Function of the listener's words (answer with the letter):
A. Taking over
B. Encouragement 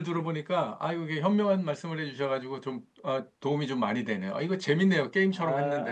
A